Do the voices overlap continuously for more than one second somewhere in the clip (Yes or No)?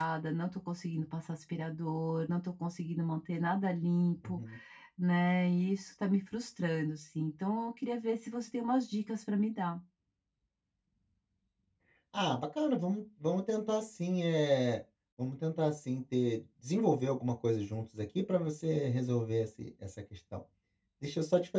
No